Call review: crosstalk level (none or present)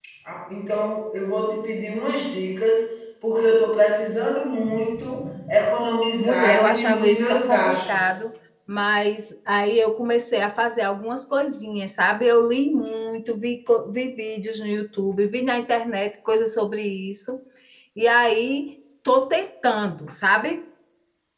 present